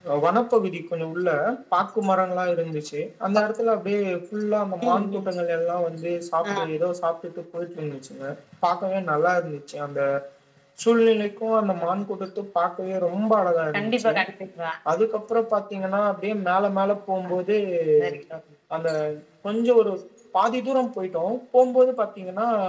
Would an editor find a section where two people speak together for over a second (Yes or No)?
No